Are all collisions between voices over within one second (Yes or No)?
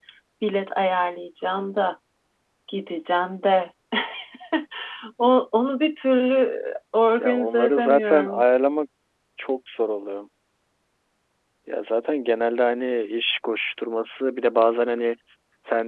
No